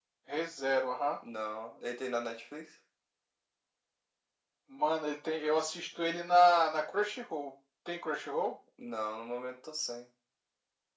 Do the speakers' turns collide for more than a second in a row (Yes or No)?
No